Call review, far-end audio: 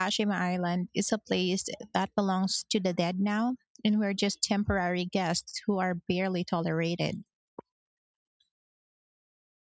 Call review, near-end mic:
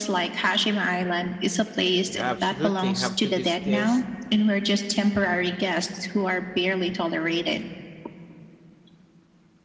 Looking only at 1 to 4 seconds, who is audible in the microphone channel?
both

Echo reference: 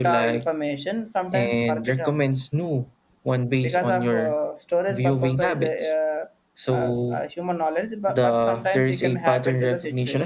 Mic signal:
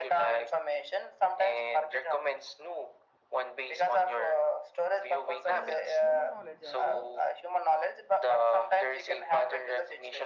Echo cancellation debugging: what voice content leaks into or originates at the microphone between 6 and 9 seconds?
both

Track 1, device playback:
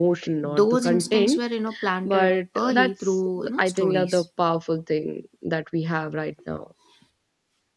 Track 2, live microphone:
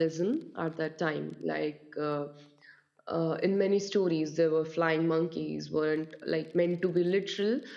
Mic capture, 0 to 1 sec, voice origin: user only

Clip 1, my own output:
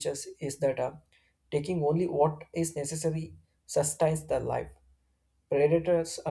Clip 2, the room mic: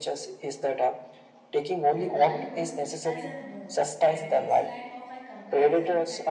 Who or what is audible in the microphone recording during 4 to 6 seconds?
both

